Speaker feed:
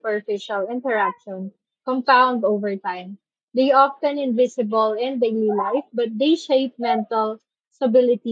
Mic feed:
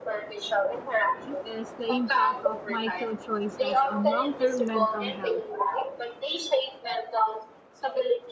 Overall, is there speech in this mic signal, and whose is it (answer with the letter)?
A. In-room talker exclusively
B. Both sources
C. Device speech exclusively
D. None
B